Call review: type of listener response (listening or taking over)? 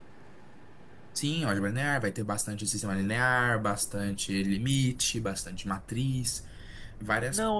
taking over